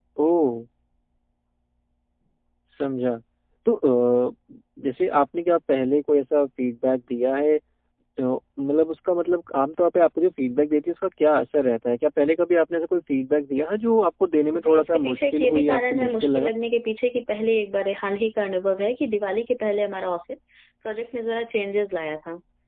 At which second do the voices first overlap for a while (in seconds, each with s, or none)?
14.5 s